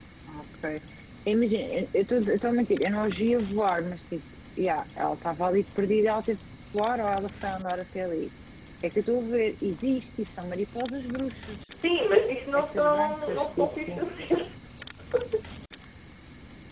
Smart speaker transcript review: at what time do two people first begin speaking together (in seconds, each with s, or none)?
12.5 s